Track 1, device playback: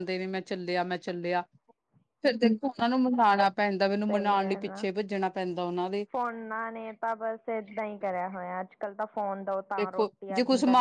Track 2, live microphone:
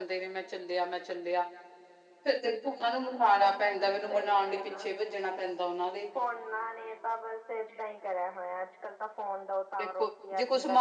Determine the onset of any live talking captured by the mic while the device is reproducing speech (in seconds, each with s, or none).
none